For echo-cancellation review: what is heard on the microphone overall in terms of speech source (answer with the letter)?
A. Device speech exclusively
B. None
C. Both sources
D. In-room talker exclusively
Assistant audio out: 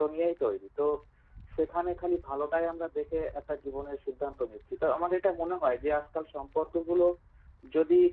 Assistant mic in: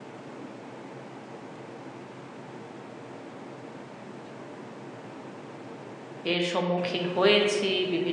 D